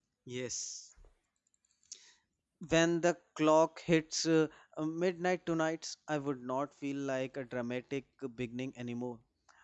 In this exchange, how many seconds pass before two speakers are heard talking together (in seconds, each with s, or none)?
none